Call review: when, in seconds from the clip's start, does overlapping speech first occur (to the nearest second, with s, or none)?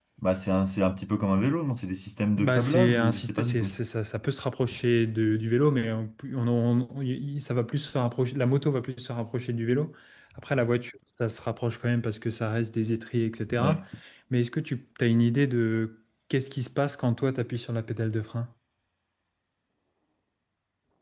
2 s